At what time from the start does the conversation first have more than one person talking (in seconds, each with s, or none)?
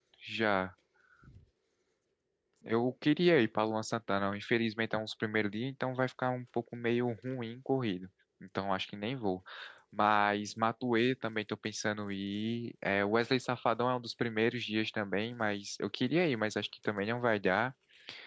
none